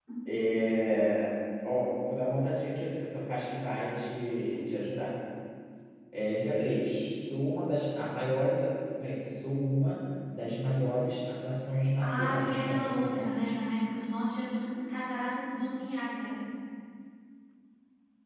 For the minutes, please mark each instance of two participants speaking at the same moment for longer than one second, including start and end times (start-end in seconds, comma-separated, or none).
12.0-13.5